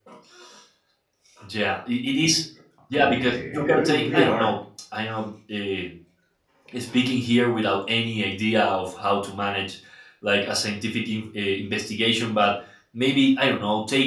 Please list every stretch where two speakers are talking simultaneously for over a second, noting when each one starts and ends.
3.0-4.5

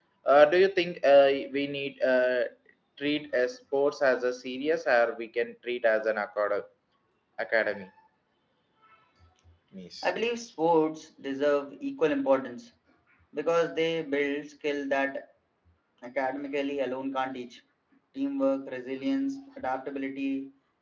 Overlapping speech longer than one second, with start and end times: none

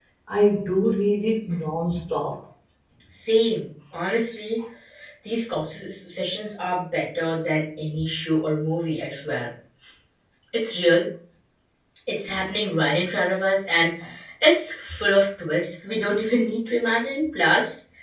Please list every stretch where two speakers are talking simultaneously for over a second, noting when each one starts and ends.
none

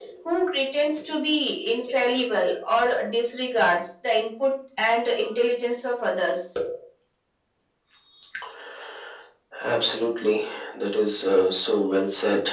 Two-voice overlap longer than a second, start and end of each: none

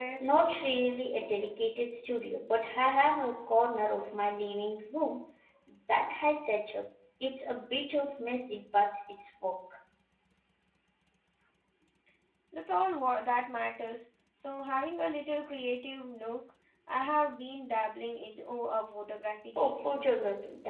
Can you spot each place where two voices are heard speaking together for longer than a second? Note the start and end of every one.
none

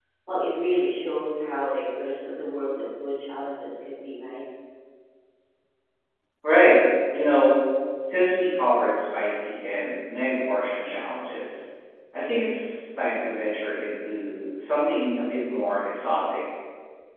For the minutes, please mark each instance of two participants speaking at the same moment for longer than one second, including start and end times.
none

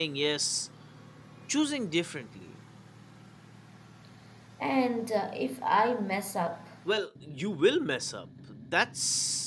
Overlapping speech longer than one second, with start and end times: none

